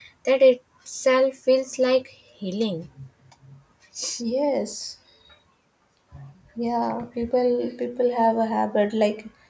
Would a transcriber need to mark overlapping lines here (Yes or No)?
No